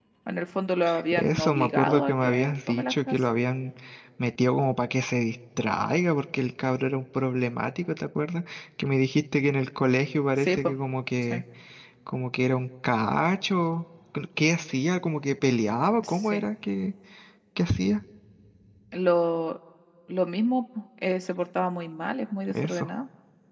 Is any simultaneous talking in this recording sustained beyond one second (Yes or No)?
Yes